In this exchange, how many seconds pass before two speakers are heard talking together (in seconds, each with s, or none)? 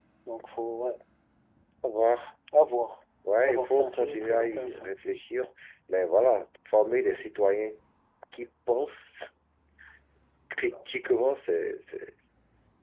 3.4 s